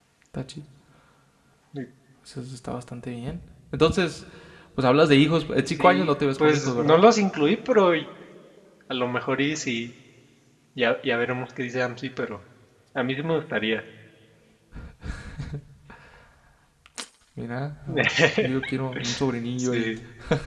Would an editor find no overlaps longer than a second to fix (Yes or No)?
No